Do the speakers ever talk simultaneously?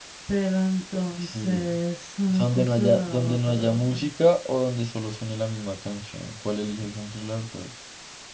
Yes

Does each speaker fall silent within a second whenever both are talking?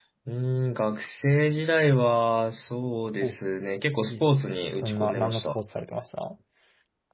No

